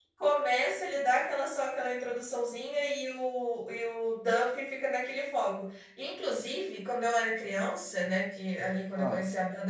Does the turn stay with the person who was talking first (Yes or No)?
Yes